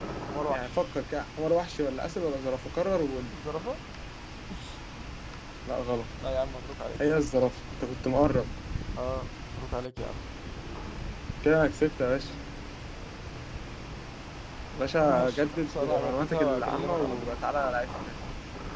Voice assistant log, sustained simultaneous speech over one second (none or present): present